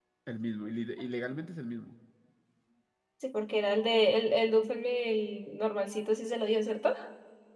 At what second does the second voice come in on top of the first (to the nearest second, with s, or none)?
none